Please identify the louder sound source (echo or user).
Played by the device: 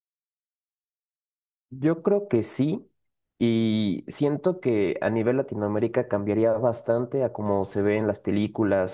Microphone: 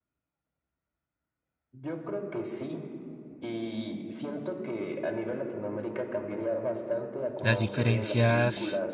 user